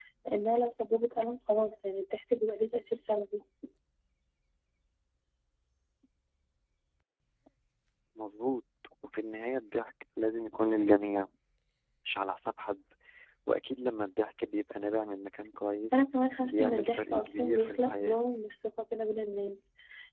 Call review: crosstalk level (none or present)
present